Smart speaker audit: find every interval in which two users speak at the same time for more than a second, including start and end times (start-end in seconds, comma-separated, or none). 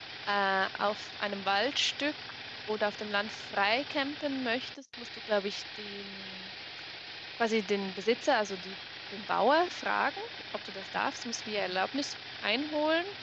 none